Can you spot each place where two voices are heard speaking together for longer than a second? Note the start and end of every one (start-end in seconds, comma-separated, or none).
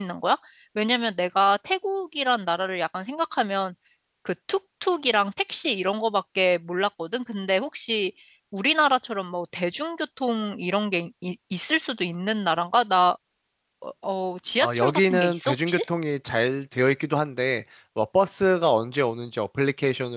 14.6-15.8